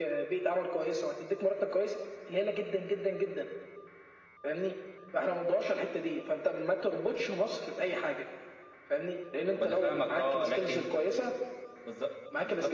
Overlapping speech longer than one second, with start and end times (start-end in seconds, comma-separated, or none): 9.6-10.9